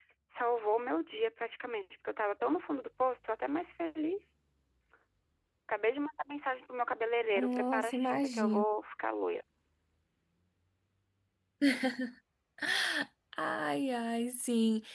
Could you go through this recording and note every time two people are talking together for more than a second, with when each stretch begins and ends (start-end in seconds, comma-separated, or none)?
7.4-8.6